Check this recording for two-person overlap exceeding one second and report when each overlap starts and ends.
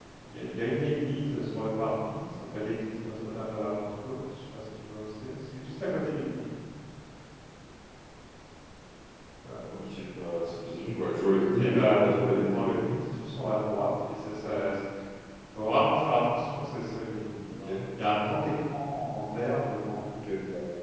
11.6-13.0

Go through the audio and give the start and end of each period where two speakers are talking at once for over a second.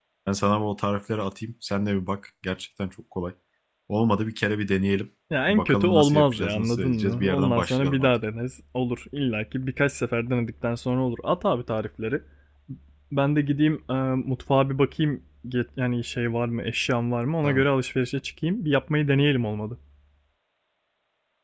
5.5-8.1

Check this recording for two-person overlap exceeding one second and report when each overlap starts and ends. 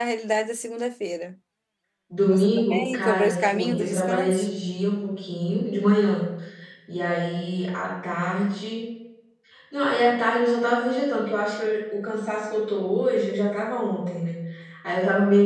2.3-4.5

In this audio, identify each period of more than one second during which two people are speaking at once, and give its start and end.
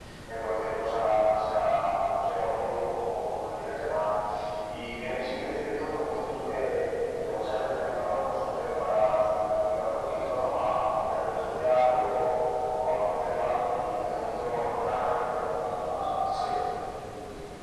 13.5-15.4

